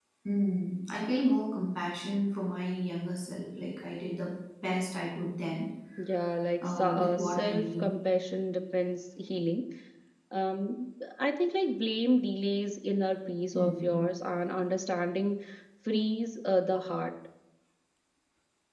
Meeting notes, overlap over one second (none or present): present